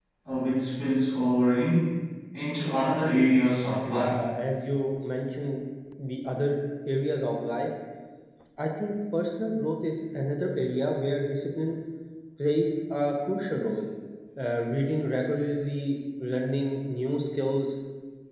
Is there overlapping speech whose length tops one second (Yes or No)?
No